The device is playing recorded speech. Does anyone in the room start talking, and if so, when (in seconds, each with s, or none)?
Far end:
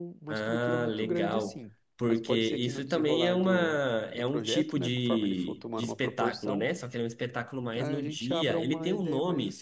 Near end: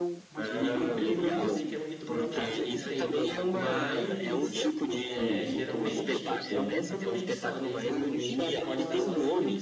0.5 s